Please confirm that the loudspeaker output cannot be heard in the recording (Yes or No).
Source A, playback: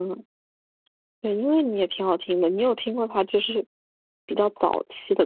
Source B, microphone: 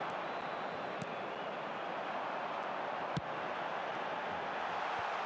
Yes